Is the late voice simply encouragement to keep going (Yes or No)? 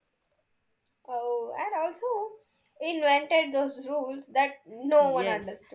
No